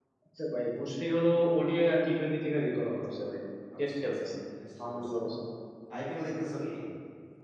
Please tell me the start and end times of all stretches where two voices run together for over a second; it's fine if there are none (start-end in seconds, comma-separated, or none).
none